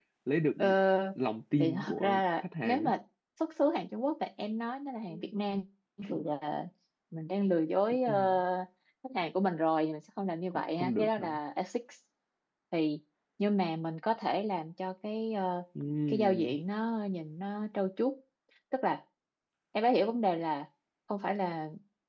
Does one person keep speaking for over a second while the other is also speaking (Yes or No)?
Yes